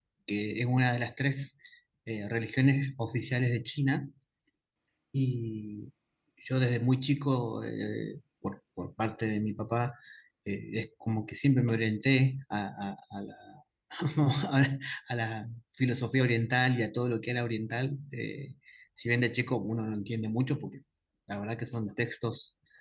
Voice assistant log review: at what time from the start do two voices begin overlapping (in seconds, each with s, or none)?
none